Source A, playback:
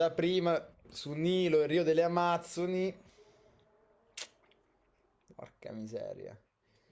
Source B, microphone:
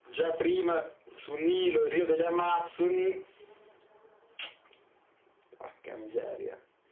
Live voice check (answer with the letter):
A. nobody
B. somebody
A